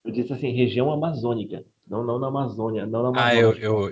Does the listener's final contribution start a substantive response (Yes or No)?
Yes